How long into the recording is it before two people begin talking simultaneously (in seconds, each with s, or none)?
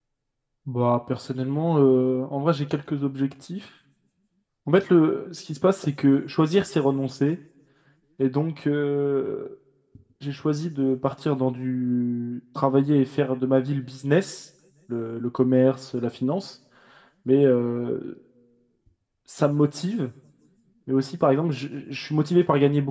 none